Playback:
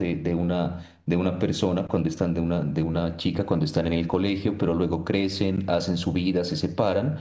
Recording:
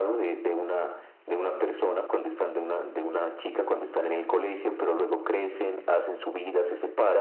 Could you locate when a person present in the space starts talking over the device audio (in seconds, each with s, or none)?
none